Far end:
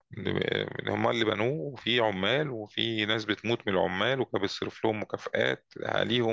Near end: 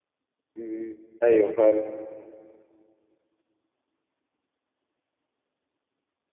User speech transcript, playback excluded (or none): مم. أيوة فعلا